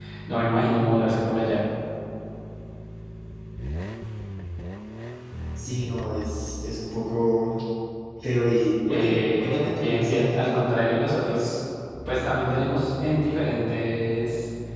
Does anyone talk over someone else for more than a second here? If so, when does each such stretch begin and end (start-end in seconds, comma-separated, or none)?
8.9-10.6